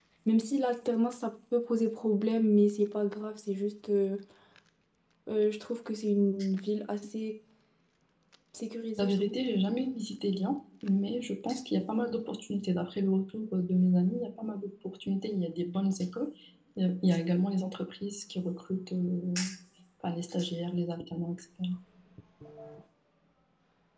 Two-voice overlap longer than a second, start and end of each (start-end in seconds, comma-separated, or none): none